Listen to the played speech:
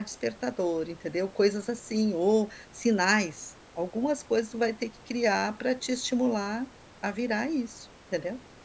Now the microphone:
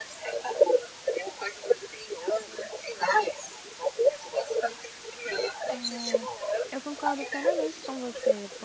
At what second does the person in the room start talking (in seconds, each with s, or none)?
5.7 s